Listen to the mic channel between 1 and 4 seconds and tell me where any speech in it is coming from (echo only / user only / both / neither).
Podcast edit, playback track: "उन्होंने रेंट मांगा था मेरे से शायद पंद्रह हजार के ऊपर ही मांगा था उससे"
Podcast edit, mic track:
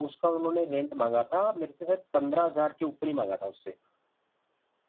echo only